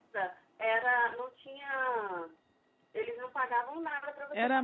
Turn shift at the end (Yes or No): Yes